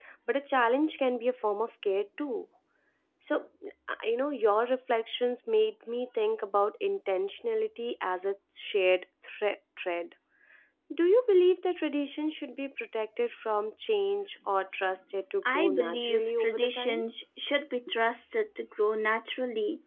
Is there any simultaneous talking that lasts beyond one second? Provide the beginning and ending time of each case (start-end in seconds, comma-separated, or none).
15.5-17.0